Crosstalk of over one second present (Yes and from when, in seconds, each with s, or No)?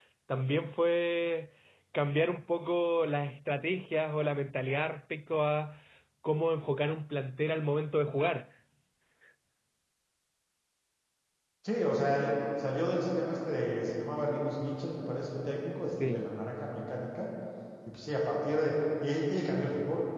No